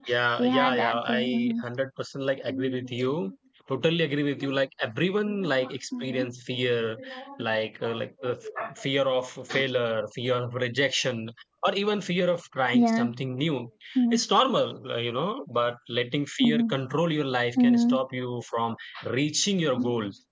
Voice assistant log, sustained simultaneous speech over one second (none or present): present